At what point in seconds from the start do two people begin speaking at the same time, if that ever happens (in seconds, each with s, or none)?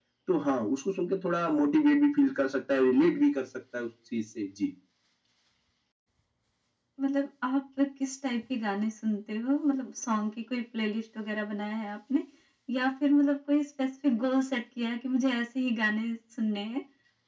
none